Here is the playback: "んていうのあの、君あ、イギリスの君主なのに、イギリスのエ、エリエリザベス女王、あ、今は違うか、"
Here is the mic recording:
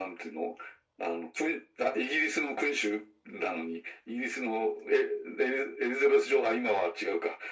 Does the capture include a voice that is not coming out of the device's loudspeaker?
No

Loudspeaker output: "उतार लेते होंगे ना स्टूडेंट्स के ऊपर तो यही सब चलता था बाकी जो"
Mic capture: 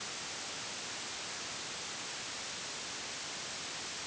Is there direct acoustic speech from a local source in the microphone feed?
No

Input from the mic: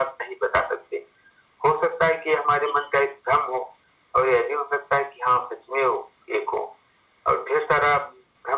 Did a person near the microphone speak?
No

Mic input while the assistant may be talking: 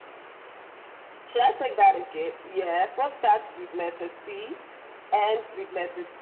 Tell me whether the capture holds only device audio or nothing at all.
Yes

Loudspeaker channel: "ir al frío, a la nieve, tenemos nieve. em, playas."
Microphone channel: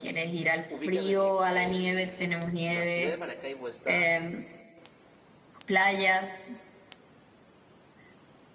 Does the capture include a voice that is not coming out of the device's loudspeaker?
Yes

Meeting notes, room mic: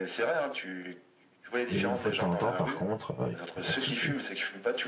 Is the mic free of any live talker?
No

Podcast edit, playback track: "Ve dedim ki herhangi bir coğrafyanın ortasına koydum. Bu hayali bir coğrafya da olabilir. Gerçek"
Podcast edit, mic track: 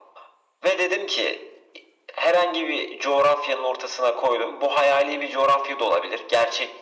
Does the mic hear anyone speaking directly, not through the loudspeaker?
No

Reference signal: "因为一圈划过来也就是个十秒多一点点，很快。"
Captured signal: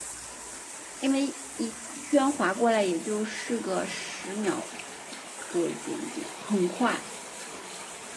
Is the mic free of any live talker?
Yes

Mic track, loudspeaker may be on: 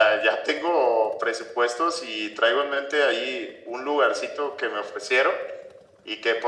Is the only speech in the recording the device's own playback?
Yes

